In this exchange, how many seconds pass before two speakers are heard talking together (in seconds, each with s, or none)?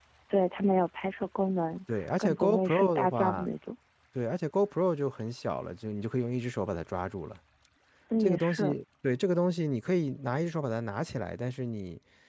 1.9 s